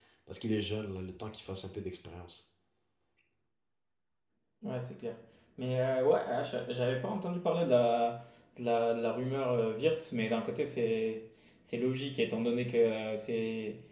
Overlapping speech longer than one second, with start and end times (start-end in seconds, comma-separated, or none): none